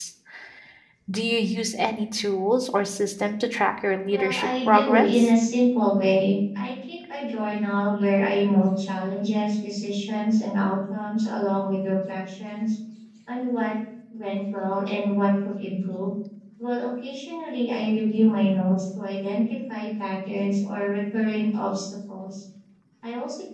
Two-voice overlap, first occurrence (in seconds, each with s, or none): 4.0 s